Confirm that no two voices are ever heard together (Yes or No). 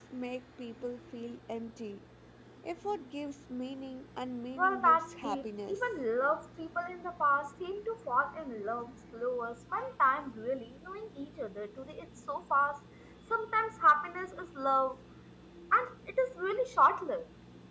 No